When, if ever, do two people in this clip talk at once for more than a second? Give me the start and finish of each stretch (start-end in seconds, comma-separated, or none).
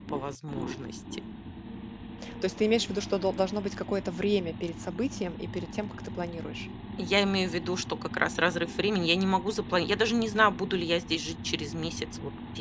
none